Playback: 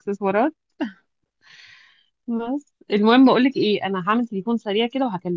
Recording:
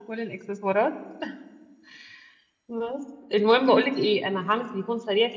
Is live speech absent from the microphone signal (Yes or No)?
Yes